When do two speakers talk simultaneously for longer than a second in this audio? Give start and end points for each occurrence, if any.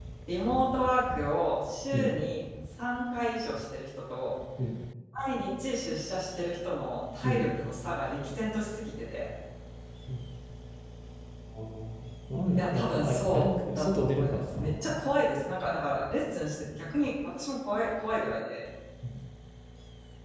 12.6-15.0

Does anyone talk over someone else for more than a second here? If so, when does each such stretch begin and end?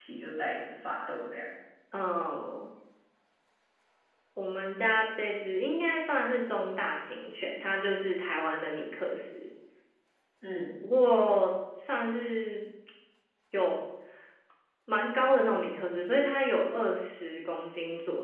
none

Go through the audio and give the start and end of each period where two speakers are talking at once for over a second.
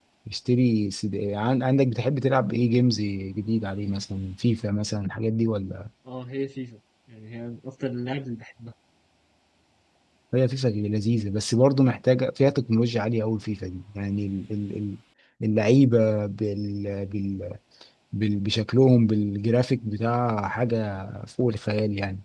none

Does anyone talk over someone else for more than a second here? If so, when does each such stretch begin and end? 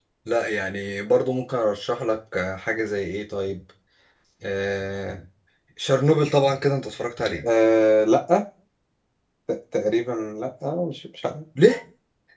none

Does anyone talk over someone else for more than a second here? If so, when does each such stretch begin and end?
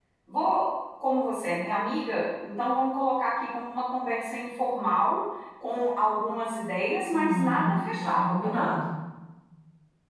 7.1-8.7

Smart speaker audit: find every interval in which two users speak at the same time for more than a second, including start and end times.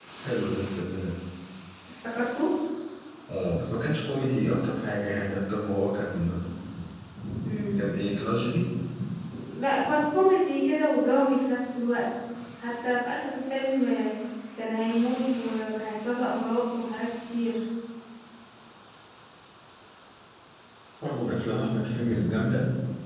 none

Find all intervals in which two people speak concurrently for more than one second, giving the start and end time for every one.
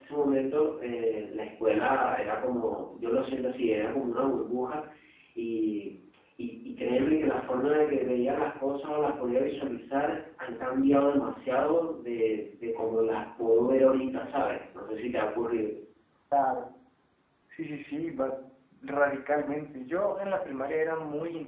none

